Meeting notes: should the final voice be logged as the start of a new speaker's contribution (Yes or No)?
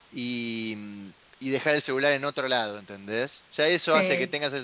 No